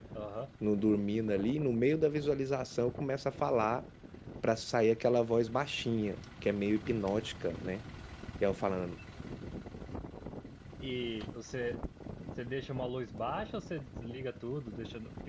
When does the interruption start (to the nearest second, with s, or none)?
none